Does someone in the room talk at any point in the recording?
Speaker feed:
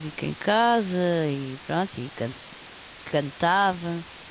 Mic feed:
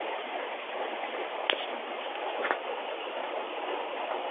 No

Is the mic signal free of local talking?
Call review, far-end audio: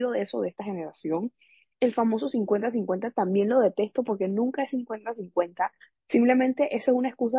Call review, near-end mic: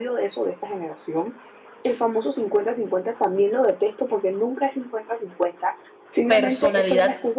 No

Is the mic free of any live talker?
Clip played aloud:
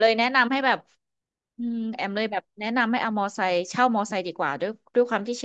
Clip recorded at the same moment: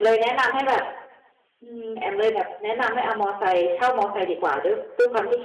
Yes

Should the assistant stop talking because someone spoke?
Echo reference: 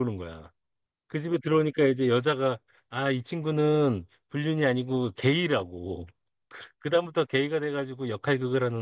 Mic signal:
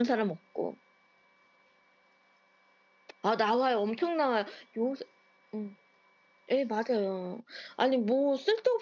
Yes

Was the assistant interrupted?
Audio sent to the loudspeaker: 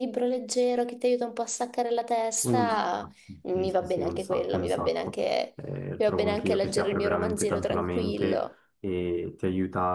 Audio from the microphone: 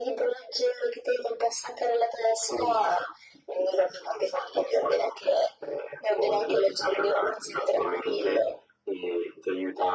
No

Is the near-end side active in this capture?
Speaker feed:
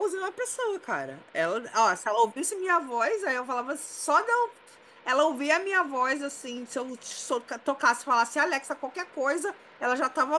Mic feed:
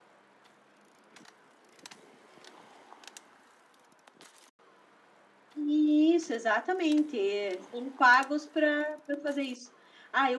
Yes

